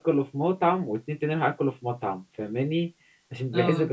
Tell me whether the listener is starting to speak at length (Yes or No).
No